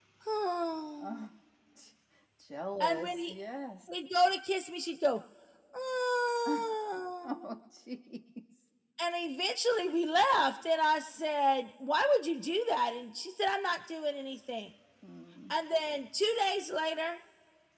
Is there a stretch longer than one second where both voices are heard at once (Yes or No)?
No